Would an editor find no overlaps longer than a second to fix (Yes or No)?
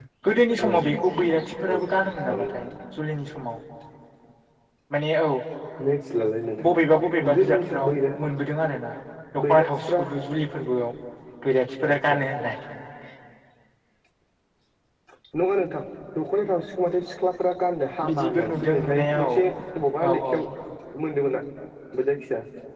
No